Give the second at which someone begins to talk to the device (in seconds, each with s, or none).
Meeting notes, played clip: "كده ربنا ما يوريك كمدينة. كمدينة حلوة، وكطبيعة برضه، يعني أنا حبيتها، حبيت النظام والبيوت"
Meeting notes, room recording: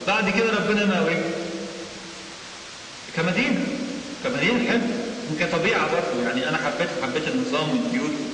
none